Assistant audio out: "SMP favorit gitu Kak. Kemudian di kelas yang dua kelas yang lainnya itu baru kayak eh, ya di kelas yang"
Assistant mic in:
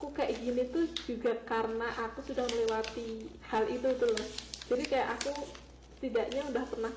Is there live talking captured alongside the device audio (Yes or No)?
Yes